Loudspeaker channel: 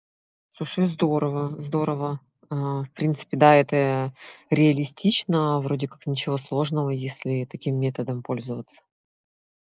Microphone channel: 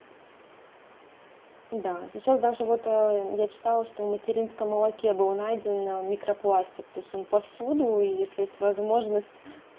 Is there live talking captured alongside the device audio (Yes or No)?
Yes